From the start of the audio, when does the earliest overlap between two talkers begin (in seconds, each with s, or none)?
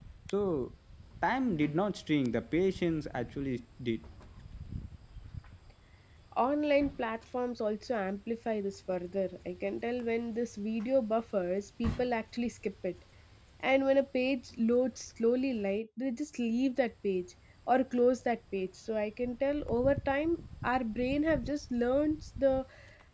none